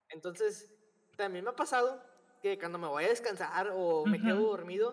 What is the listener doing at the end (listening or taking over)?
listening